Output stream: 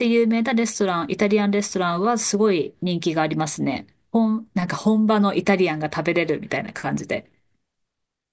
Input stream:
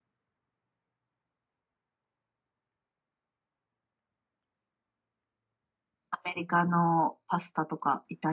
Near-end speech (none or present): present